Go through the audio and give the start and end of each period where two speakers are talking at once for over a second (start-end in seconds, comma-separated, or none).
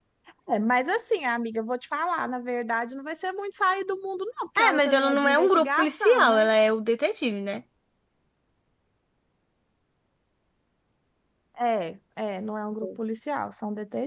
4.7-6.5